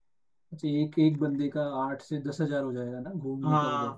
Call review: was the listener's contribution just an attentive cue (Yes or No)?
No